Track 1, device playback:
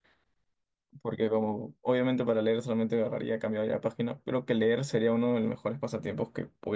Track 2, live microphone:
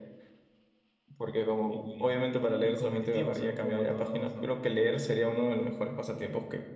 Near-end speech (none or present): present